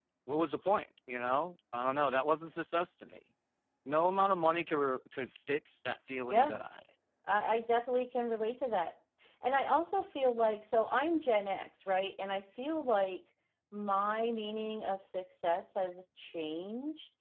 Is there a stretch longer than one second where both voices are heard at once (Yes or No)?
No